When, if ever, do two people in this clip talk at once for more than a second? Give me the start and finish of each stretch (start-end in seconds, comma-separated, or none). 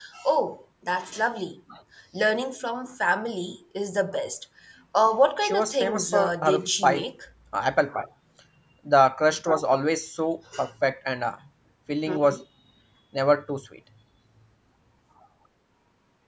5.4-7.0